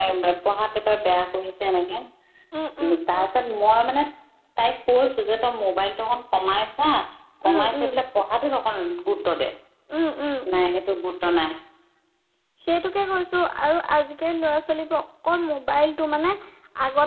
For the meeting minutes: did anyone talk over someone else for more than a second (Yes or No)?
No